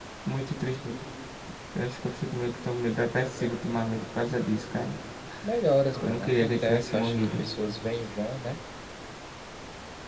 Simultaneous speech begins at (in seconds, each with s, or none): 6.0 s